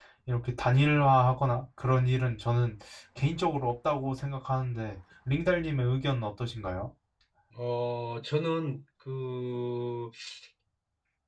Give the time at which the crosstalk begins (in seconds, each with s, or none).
none